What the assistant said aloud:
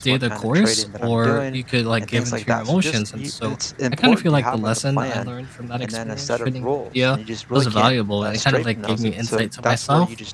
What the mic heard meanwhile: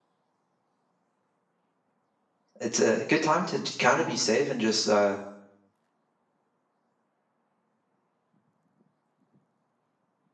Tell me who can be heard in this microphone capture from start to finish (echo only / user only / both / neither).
user only